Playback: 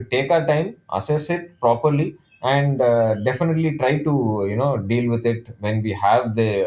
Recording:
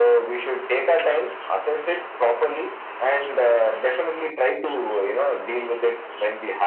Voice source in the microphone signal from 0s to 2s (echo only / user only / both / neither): echo only